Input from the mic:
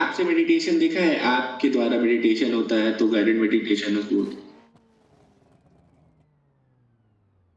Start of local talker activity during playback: none

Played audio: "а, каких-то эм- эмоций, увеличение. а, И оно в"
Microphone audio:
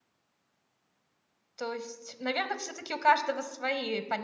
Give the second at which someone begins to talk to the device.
1.6 s

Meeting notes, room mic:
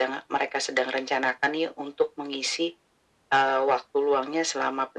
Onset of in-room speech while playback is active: none

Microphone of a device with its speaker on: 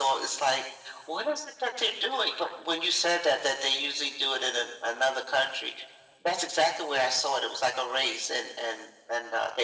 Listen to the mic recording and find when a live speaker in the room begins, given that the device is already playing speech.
none

